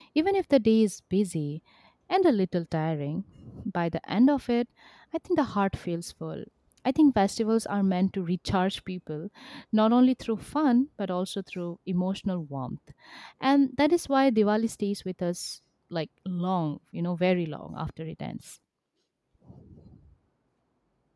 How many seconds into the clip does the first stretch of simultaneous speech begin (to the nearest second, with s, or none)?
none